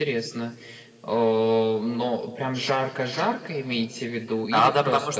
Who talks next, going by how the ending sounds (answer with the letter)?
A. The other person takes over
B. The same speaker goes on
A